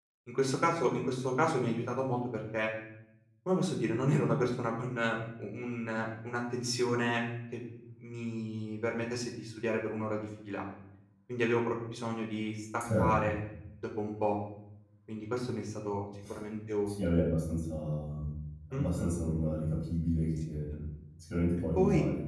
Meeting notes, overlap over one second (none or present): none